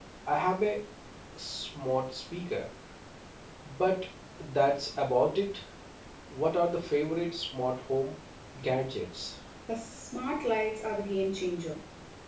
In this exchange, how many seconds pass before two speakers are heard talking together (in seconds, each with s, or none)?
none